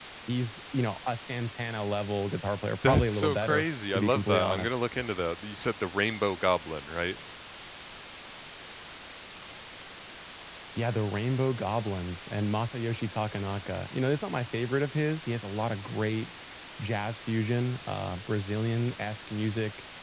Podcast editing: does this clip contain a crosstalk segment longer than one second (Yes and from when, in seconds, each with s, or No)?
Yes, from 2.8 s